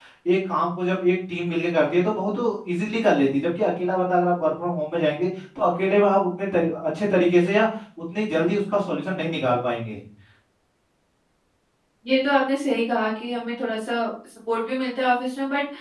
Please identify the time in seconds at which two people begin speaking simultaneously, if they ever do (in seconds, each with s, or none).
none